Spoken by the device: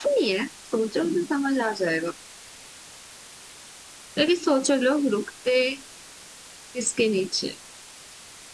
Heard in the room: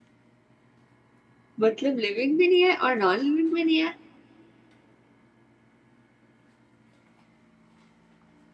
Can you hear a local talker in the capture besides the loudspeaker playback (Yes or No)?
Yes